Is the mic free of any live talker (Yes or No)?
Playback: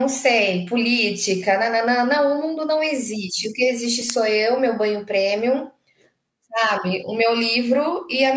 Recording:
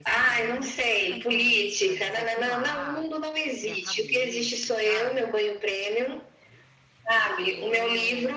No